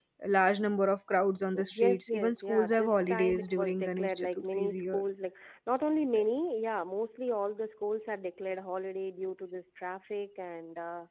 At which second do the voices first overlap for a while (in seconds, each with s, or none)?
1.5 s